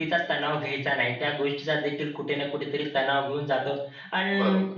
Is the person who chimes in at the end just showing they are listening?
Yes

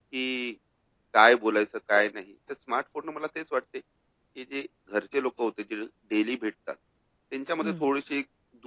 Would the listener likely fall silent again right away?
Yes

